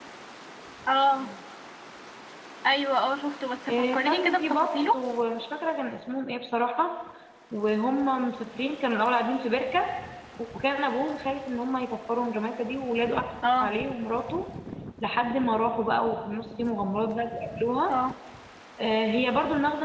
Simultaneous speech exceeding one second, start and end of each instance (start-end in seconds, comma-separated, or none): 3.7-5.0